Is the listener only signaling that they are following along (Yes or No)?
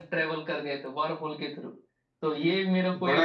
Yes